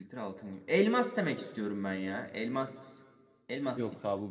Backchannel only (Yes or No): No